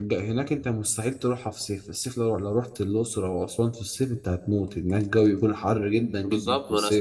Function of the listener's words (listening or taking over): taking over